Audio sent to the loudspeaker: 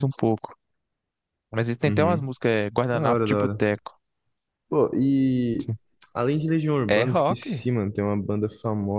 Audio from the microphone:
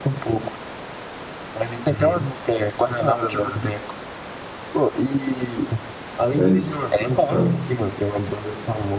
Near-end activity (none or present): present